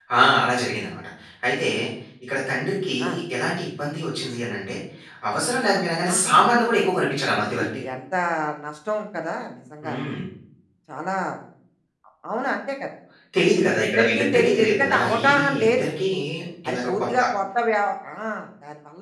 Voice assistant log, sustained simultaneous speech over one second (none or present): present